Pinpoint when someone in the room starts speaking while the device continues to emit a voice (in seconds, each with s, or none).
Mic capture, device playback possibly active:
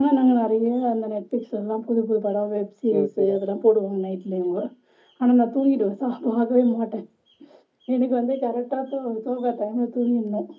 2.9 s